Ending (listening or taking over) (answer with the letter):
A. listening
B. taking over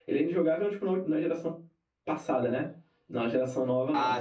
A